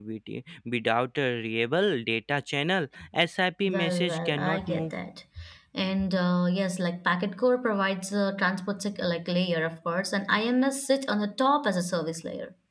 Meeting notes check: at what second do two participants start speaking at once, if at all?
3.6 s

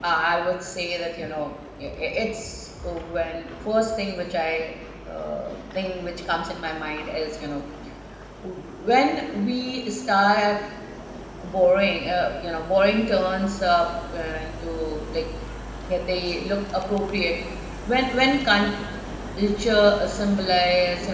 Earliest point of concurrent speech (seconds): none

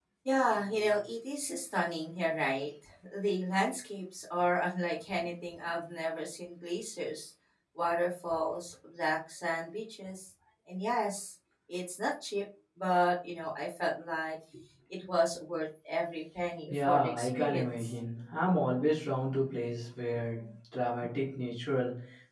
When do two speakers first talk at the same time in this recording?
16.7 s

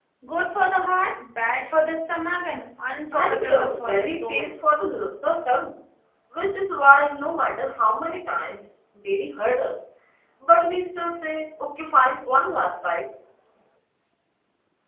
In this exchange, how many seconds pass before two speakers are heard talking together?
3.1 s

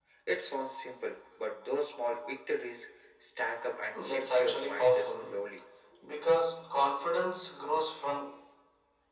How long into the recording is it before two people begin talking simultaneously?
3.9 s

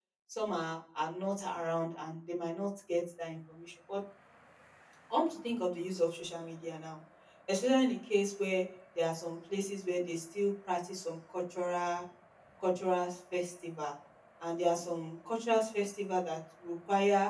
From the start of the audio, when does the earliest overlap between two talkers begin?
none

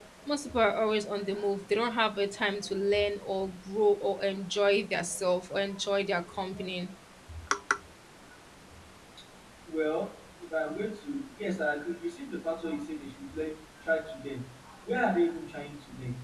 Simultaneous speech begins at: none

